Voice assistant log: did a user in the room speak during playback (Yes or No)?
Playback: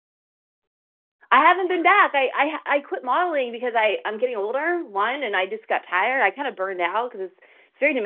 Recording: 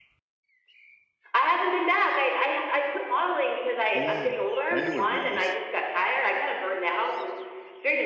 Yes